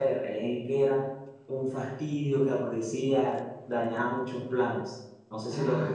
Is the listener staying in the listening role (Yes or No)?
No